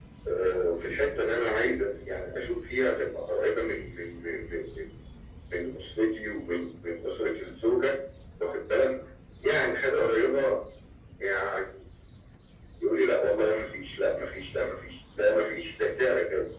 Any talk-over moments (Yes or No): No